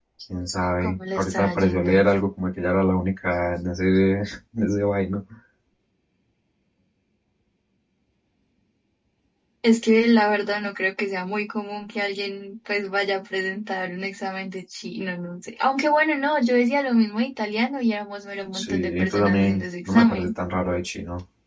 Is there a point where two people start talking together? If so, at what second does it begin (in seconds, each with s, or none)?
0.8 s